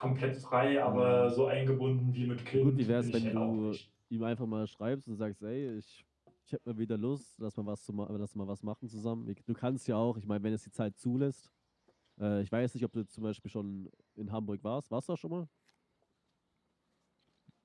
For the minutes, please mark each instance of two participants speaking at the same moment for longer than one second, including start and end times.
2.5-3.8

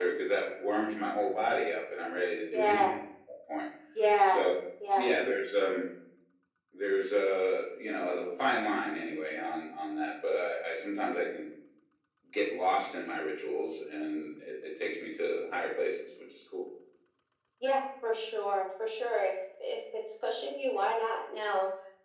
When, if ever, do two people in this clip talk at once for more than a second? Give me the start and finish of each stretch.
none

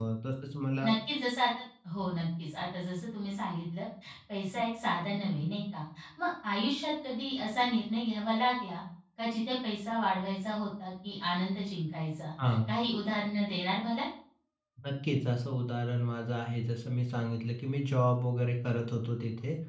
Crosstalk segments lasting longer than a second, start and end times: none

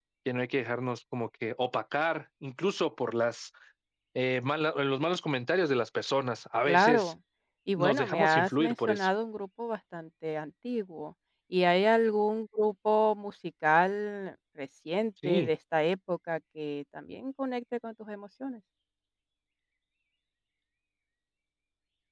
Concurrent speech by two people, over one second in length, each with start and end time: 7.8-9.1

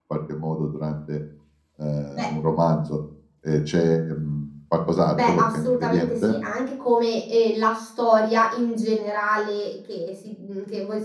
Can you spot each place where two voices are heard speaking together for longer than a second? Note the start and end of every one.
5.1-6.3

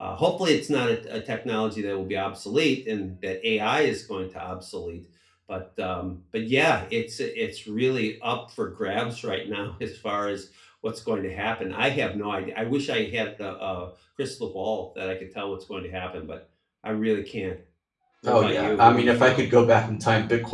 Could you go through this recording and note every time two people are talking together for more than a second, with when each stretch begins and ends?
18.3-19.5

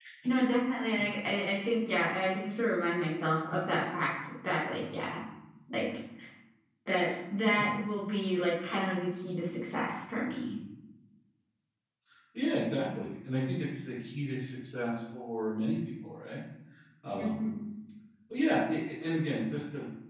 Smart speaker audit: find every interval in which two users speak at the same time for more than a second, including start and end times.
none

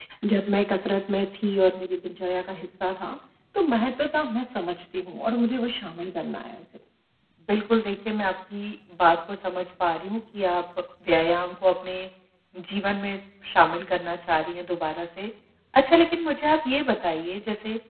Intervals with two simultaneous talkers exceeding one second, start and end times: none

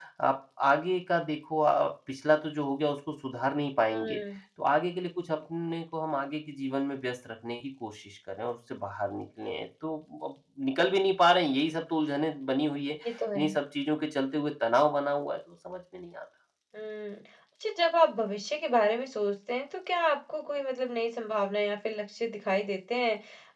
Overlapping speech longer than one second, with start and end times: none

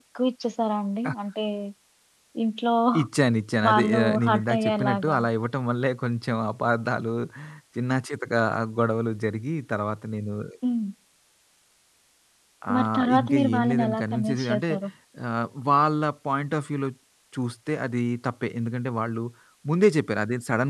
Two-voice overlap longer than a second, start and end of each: 3.7-5.2, 12.7-14.7

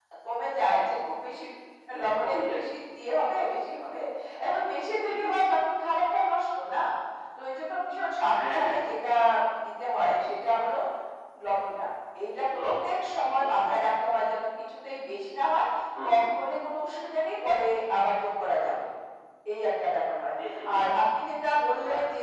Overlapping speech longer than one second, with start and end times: none

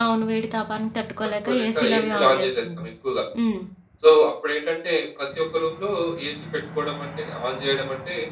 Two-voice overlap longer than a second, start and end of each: 1.4-2.9

